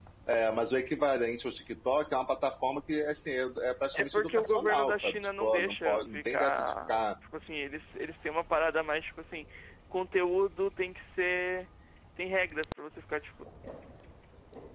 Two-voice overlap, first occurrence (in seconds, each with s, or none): 3.9 s